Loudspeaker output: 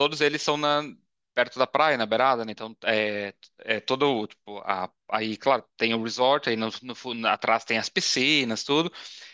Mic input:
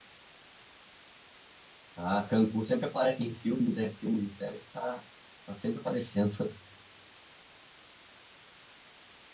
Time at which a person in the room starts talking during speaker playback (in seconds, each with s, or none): 1.9 s